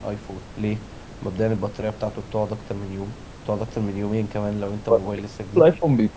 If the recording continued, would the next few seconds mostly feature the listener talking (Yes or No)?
Yes